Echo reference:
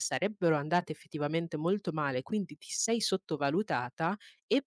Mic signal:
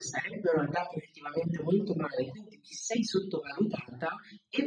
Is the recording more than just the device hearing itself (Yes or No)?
No